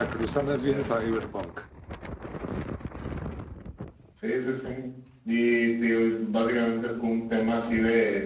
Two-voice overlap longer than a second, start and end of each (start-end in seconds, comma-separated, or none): none